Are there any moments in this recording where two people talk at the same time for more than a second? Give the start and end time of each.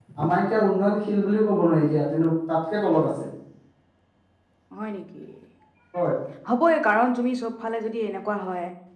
none

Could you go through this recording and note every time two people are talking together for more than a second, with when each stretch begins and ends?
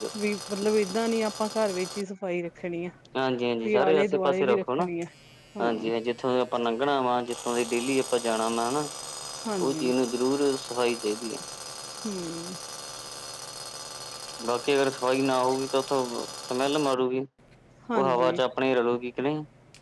3.6-4.9

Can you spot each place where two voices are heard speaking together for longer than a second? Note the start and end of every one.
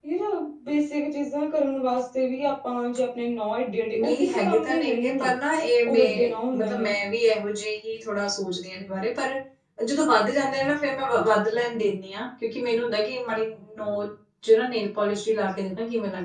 4.0-5.3

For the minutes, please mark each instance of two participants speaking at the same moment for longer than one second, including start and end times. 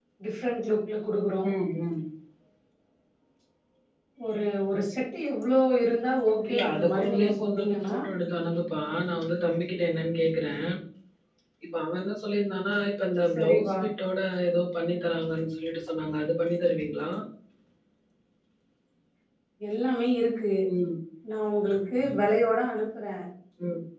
6.5-8.0

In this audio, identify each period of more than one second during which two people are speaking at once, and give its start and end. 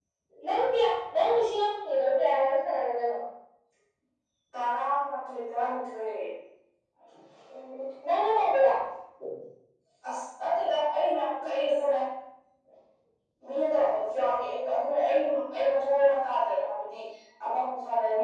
none

